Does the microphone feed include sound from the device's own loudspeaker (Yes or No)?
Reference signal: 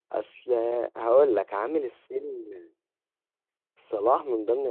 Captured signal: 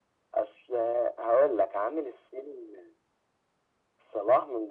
Yes